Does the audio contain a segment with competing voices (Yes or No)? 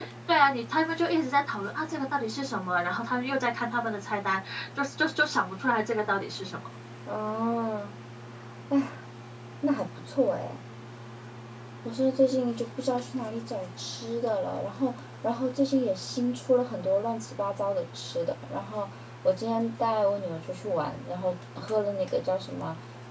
No